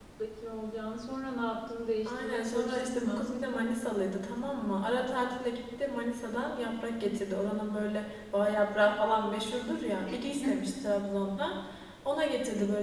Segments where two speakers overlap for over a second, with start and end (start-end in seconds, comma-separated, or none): 2.0-3.3